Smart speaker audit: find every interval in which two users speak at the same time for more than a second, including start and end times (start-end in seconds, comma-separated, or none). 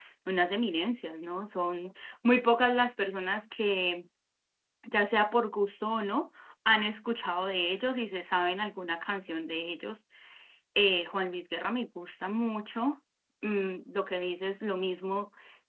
none